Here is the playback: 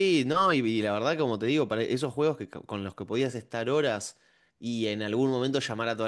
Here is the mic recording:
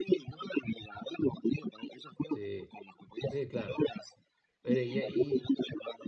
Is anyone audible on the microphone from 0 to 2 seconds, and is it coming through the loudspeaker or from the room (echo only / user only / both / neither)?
echo only